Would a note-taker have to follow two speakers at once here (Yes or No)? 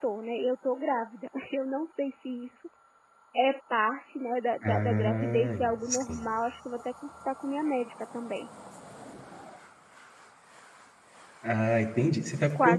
Yes